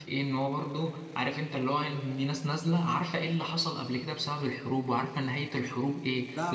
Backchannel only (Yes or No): Yes